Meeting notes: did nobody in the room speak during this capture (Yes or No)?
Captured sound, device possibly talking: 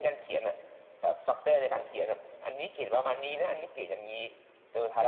Yes